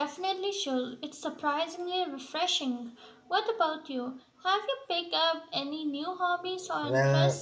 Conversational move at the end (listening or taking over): taking over